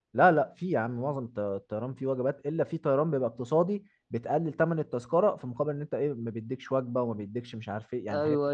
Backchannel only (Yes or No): No